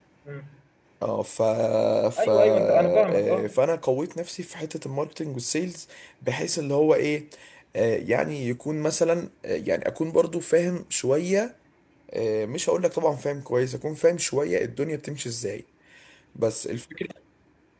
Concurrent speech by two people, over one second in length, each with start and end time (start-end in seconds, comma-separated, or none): 2.2-3.5